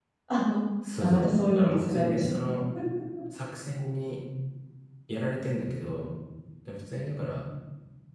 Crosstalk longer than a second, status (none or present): present